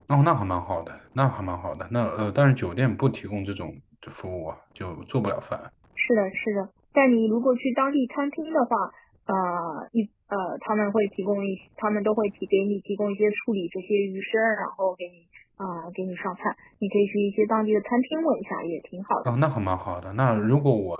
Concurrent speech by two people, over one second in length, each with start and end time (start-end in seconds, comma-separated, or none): none